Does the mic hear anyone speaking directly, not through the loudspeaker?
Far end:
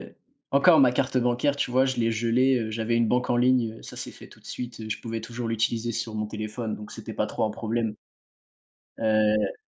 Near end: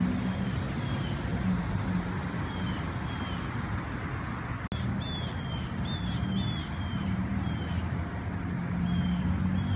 No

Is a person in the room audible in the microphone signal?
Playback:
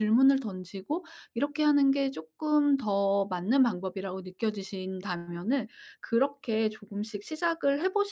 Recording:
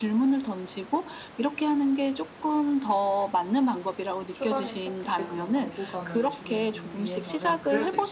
Yes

